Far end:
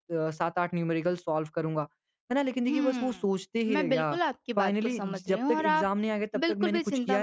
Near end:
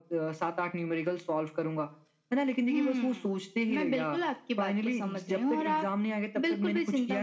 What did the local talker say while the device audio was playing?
none

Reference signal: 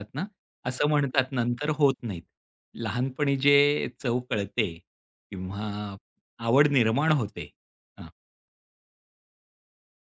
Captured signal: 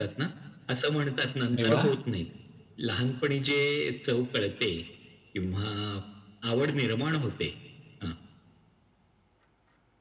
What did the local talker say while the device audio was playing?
अरे वाह!

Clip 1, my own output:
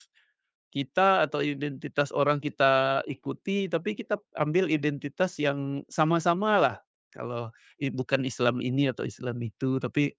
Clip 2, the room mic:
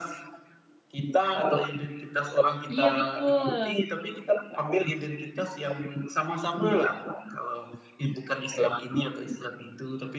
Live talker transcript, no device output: Iya betul,

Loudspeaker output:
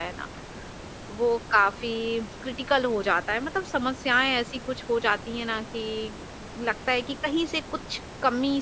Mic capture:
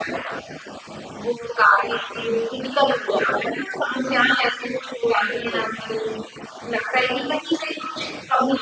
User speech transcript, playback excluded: बिल्कुल।

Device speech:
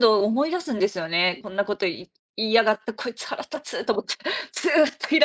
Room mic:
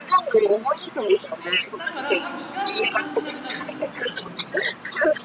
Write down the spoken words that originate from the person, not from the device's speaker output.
だから多分幸せも感じなくなるんすよね、多分、処方無我って。

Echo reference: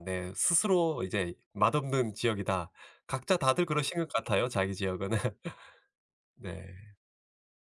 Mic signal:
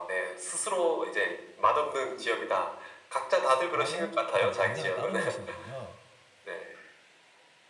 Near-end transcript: 따로 그다음에 간장은 따로 넣으시는군요.

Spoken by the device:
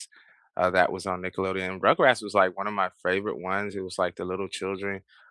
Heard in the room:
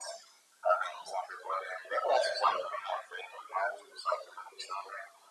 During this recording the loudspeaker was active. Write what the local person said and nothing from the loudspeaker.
none

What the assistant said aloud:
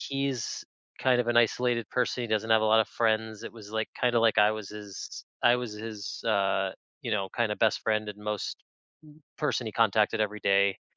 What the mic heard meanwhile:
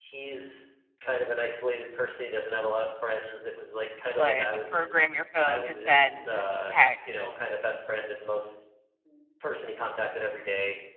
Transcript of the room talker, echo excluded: but program your phone to send texts

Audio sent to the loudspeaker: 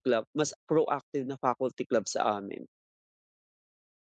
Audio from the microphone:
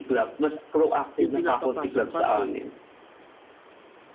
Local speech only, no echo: yung pinapapasok kami

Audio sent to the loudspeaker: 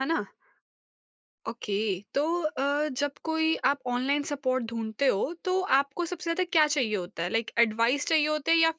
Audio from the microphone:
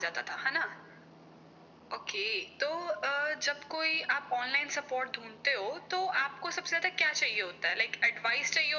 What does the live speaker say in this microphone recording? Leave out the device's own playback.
none

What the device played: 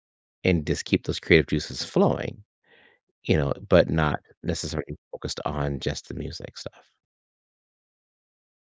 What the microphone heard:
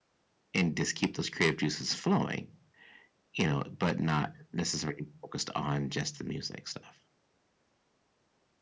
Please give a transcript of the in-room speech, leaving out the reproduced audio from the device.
none

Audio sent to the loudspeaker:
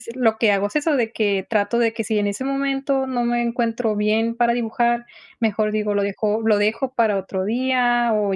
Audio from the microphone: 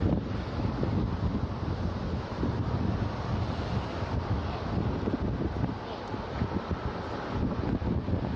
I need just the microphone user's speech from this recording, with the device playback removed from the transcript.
none

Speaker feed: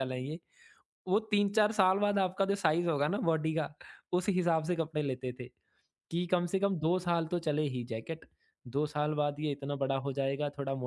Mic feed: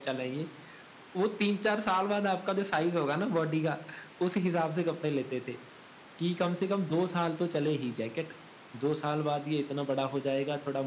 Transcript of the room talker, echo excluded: none

